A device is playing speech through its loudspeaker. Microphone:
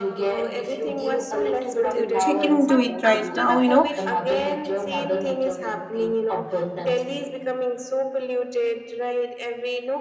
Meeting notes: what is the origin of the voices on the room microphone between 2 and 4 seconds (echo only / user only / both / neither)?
both